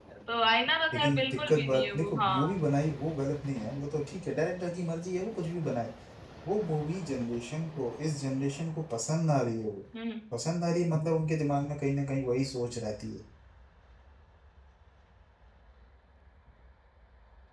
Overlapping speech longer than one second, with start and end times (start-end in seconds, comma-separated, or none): 0.9-2.6